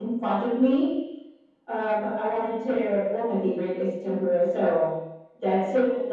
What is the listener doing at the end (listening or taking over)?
listening